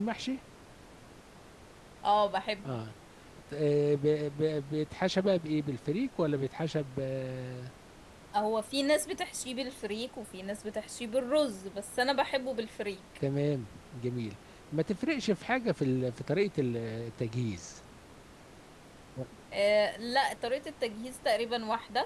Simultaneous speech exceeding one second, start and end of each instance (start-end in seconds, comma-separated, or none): none